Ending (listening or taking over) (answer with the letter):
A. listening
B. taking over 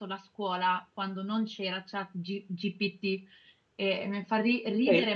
B